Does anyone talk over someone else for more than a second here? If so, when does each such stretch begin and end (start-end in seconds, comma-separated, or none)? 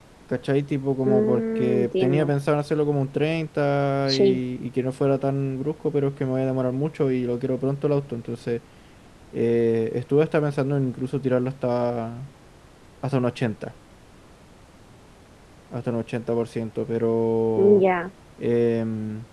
1.0-2.3